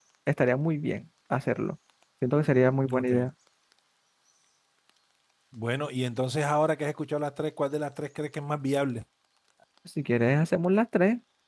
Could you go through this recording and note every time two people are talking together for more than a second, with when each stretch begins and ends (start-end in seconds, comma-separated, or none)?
none